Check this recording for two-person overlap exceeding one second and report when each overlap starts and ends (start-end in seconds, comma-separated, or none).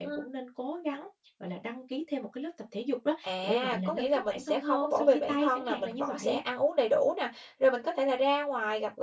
3.2-6.4